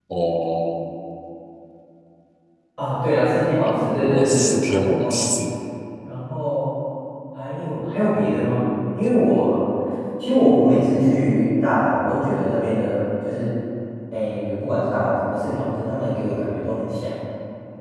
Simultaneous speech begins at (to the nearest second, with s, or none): 4 s